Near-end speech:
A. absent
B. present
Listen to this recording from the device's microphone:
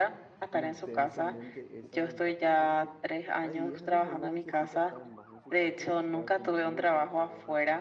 B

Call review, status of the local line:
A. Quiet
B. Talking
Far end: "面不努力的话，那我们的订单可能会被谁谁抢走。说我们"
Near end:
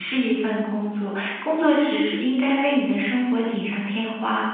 B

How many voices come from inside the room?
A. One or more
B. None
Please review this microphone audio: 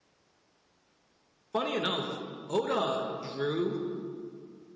A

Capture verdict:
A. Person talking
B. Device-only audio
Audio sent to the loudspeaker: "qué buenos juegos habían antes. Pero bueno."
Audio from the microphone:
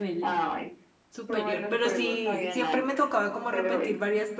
A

